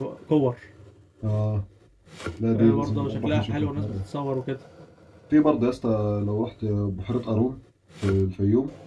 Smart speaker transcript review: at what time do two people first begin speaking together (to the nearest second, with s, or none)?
3 s